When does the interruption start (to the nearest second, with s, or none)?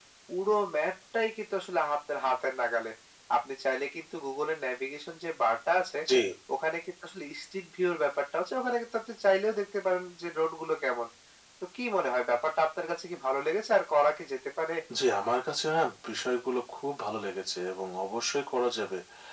none